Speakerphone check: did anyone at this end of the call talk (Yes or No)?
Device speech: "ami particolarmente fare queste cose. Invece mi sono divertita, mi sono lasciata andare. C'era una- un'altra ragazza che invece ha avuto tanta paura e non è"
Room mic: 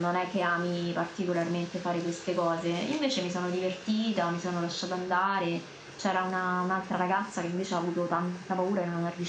No